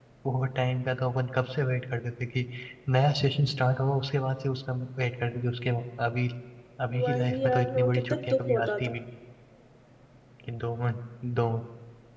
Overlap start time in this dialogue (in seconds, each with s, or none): 7.0 s